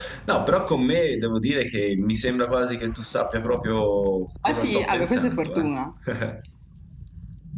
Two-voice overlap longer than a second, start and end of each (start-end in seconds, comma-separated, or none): 4.5-5.7